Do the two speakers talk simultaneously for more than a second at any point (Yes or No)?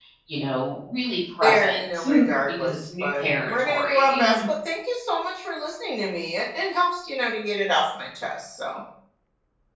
Yes